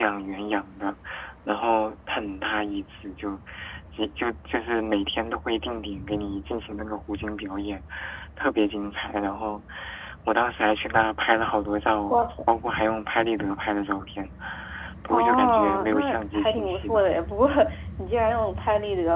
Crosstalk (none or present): present